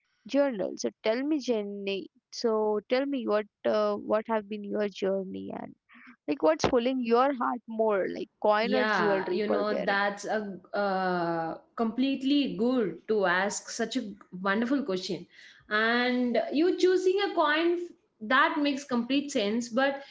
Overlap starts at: 8.6 s

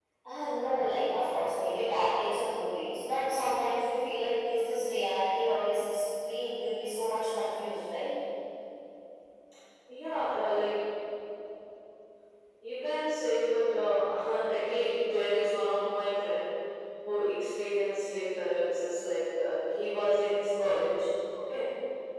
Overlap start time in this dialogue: none

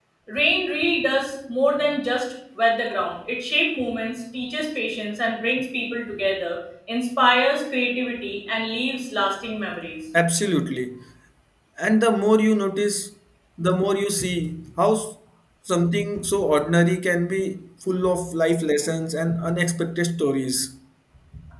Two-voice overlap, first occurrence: none

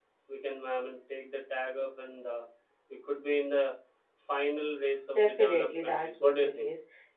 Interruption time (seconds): 5.2 s

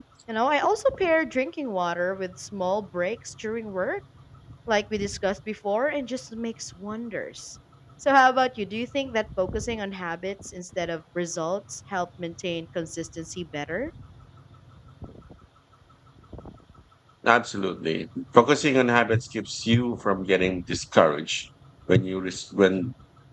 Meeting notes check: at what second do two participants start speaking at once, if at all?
none

